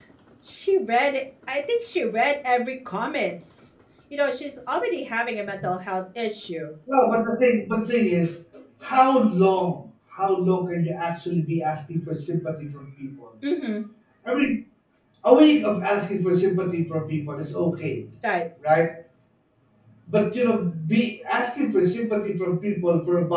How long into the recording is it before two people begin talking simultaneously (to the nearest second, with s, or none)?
none